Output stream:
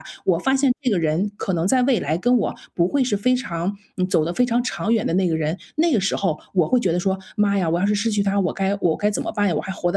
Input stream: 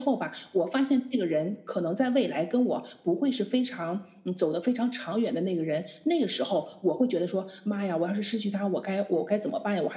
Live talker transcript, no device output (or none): none